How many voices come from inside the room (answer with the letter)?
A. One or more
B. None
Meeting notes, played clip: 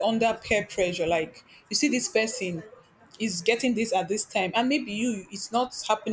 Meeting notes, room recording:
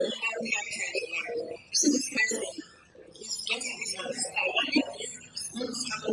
A